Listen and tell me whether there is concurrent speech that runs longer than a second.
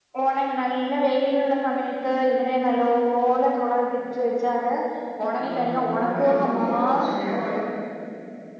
Yes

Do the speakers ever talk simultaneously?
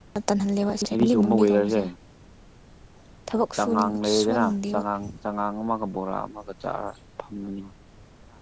Yes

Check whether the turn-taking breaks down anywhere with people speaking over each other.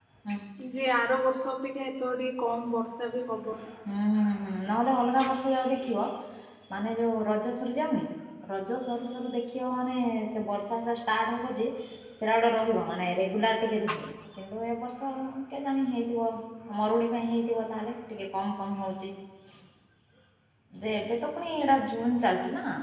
No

